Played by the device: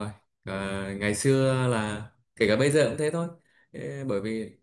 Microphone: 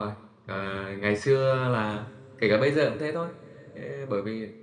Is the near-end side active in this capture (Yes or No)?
No